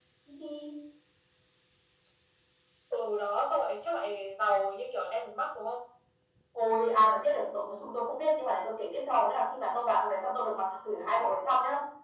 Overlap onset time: none

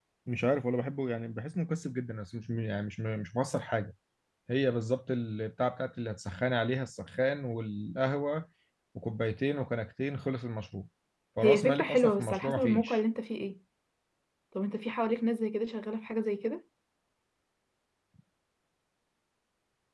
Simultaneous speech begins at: 11.4 s

